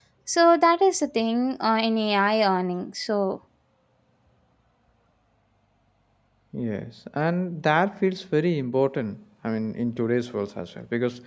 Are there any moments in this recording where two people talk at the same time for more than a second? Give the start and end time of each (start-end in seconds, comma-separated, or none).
none